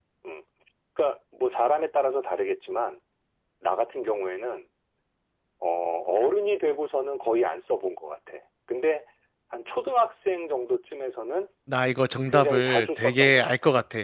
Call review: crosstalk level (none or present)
present